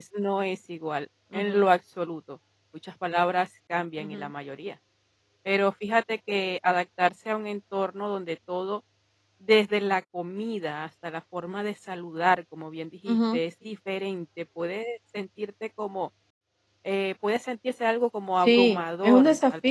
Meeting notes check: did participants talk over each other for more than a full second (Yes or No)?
Yes